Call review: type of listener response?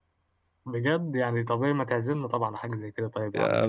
taking over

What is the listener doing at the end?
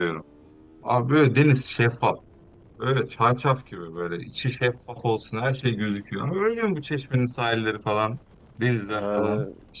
taking over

